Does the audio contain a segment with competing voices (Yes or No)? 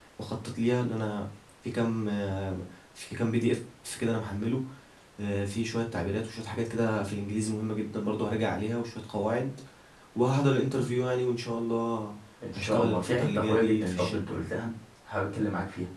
Yes